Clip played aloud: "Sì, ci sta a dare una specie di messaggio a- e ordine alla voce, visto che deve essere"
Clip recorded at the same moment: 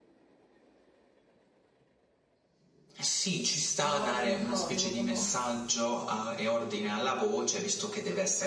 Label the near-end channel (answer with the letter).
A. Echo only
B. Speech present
B